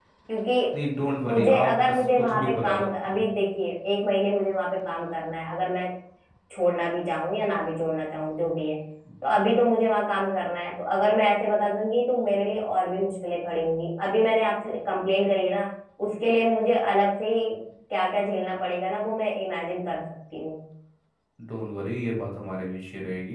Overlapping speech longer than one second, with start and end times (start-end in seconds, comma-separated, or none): 1.3-3.2